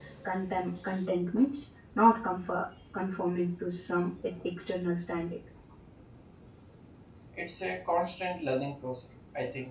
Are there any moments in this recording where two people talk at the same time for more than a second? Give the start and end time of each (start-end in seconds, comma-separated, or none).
none